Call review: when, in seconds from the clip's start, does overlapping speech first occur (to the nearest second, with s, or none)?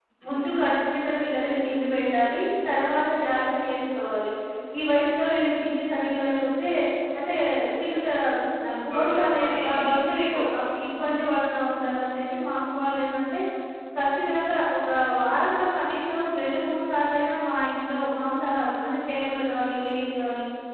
9 s